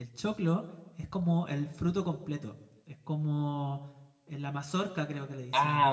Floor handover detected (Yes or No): Yes